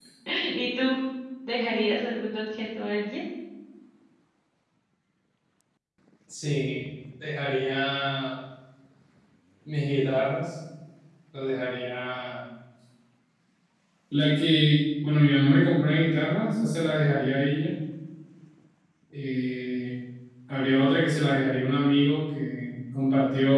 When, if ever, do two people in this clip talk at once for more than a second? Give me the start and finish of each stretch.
none

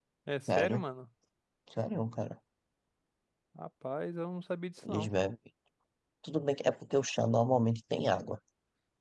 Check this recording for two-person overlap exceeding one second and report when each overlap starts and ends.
none

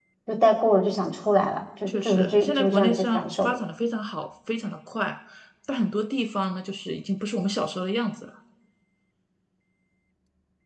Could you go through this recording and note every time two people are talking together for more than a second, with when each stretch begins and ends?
1.9-3.5

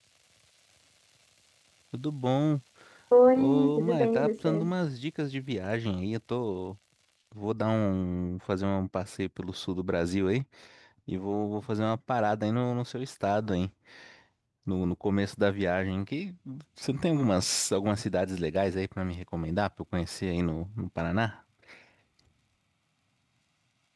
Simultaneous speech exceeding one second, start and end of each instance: 3.4-4.7

